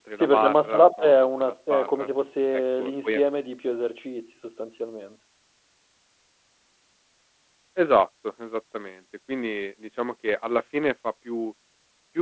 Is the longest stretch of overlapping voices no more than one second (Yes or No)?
No